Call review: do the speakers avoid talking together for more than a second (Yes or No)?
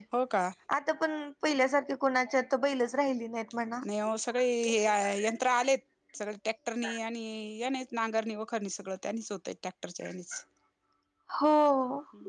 Yes